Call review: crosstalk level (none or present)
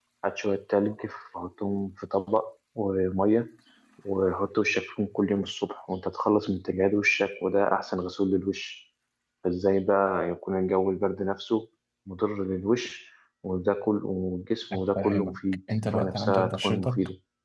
present